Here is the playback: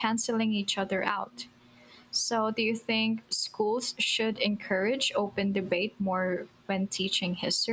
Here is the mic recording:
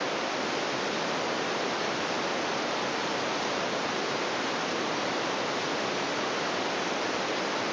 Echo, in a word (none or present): none